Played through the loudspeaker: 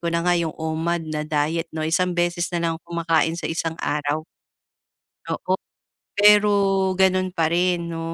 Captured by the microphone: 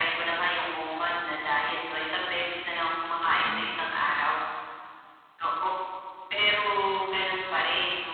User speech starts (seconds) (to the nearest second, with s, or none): 3 s